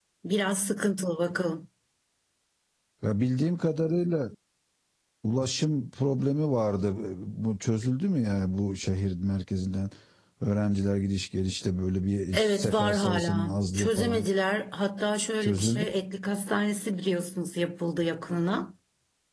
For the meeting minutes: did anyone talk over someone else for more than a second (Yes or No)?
Yes